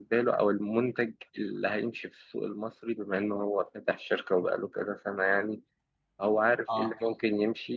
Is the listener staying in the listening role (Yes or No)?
Yes